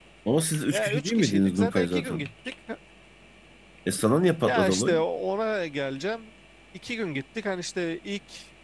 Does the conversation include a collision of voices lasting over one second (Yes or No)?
Yes